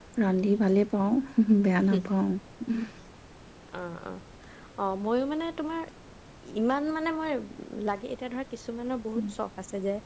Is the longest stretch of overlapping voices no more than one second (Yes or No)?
Yes